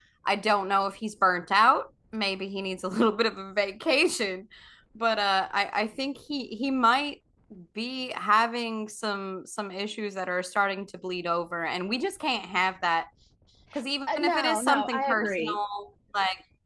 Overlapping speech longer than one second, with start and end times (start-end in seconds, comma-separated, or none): 14.2-15.6